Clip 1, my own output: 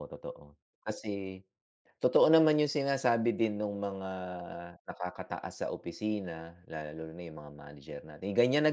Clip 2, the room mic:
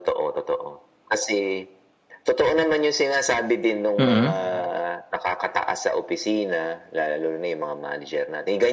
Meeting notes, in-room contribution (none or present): present